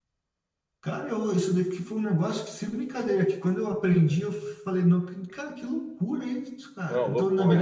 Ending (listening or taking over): listening